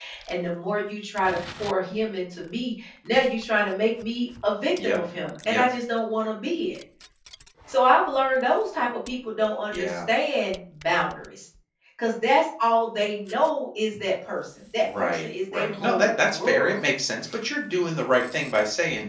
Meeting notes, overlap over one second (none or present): present